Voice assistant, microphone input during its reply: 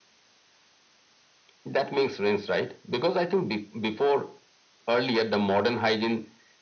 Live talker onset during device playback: none

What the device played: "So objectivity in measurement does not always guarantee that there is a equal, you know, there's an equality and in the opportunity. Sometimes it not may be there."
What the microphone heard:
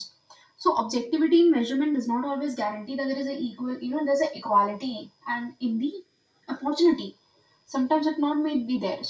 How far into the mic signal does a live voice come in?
none

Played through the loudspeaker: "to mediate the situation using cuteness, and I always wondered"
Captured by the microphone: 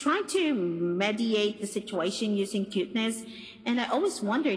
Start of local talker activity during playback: none

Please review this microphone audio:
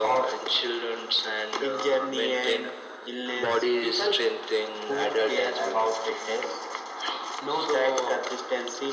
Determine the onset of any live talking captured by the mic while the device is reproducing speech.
none

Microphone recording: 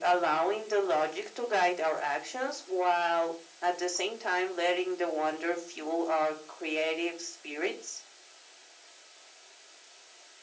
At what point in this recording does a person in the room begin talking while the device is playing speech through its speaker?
none

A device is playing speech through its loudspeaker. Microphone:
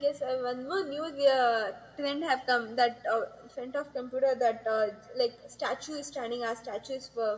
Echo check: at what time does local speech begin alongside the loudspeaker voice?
none

